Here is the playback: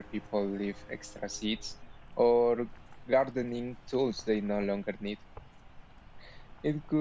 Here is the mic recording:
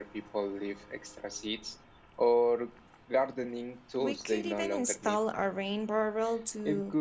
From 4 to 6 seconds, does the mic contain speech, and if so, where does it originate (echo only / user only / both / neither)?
both